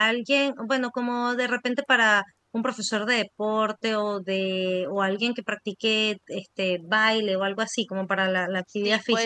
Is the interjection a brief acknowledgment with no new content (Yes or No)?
No